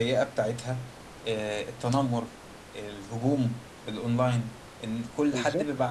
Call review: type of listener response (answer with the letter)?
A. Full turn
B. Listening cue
B